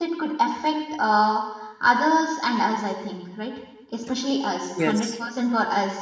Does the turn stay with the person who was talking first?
Yes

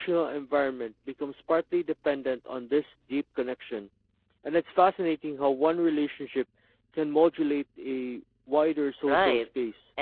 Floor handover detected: Yes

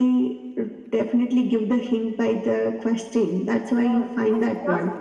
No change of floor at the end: No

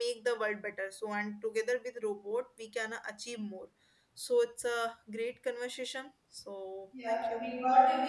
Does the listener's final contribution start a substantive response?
Yes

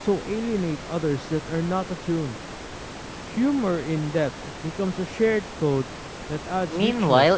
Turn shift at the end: Yes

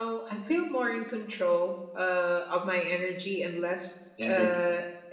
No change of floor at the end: Yes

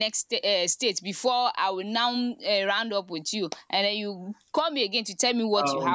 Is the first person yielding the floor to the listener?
Yes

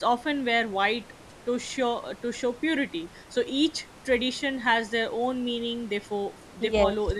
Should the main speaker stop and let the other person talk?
No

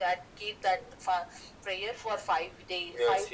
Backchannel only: No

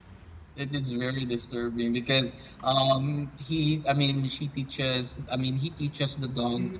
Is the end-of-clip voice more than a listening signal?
No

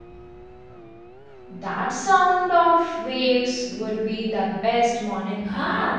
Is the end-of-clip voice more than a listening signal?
Yes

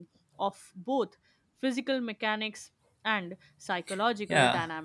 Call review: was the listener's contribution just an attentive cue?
No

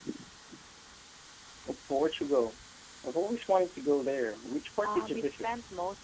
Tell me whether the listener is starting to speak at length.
Yes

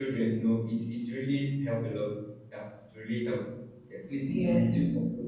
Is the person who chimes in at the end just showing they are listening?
Yes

